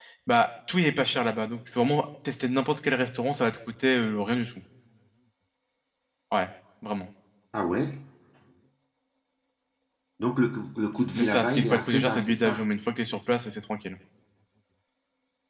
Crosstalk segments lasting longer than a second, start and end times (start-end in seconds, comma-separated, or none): 11.2-12.6